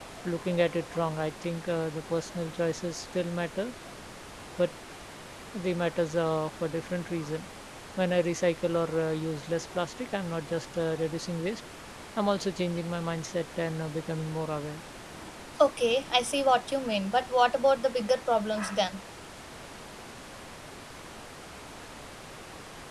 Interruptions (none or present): none